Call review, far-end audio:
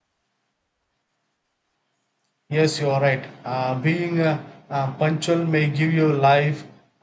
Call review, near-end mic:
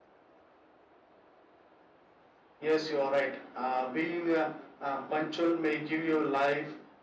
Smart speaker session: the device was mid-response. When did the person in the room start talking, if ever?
none

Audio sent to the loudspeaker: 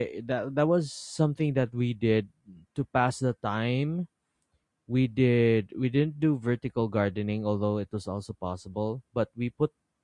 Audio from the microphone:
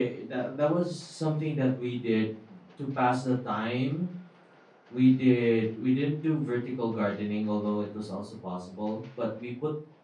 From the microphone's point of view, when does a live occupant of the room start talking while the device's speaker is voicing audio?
none

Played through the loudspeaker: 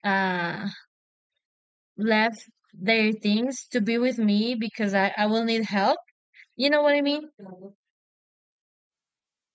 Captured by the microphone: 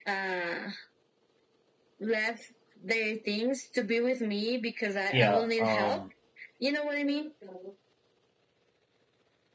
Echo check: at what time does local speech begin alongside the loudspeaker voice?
5.1 s

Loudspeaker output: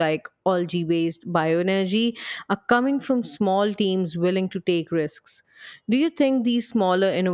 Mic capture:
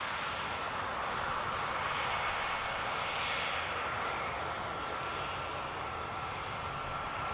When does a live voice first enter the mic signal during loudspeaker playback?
none

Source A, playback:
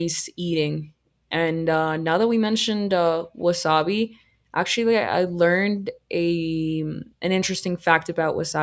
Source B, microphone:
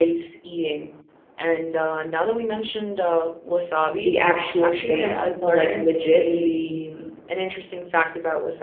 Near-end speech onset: 3.9 s

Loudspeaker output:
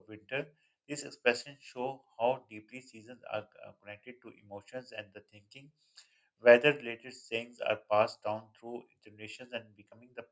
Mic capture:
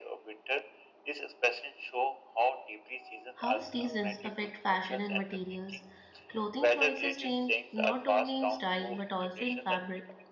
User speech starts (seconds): 3.4 s

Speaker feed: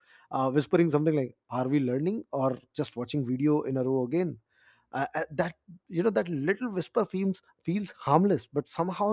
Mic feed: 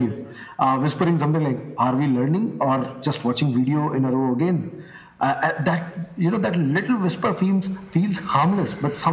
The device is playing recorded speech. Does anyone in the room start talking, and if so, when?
none

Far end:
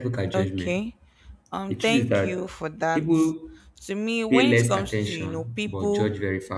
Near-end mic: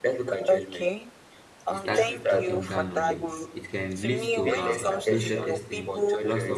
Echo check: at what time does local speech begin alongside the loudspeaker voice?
1.7 s

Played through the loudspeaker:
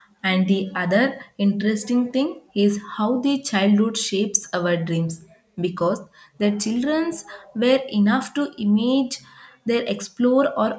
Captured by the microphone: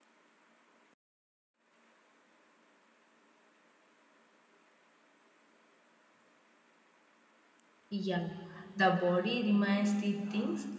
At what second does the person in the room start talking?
7.9 s

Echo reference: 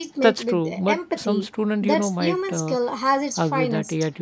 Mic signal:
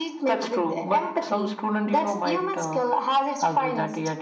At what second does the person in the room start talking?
none

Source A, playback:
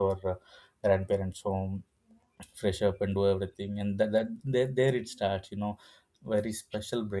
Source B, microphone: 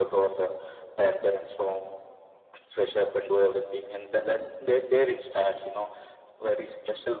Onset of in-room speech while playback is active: none

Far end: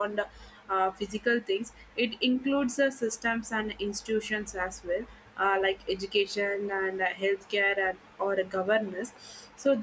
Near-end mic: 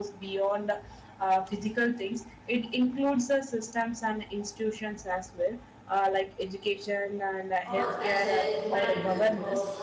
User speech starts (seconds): 7.6 s

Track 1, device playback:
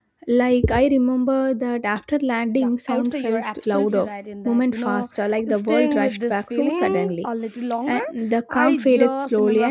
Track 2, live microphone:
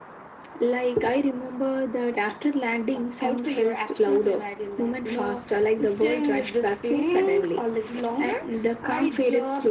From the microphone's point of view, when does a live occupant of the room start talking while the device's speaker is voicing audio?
none

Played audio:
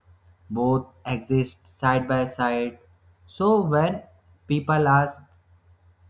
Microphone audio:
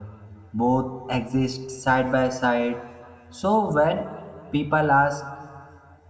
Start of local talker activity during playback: none

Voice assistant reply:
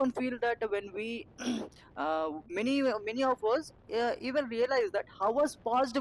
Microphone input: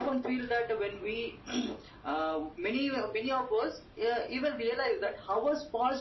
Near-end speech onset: none

